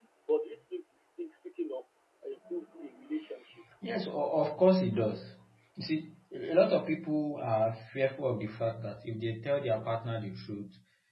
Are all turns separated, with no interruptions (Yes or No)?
Yes